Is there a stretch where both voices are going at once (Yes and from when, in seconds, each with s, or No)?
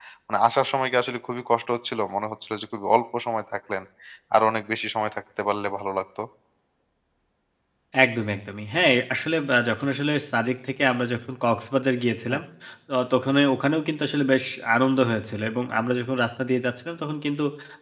No